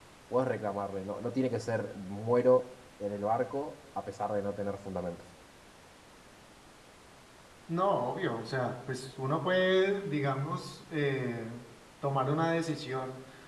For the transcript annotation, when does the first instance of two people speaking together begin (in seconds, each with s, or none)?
none